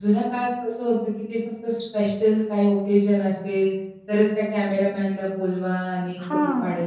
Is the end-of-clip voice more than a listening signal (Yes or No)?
No